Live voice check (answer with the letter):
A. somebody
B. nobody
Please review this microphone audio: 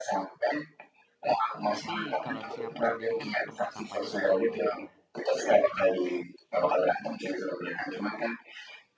A